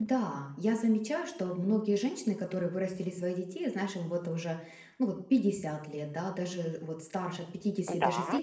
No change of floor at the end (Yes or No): Yes